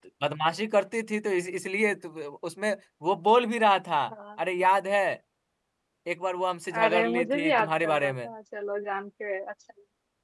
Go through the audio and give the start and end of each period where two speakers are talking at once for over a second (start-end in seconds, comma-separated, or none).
6.8-8.3